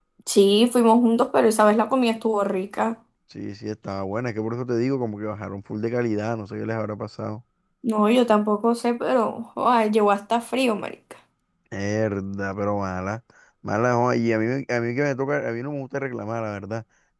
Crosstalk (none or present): none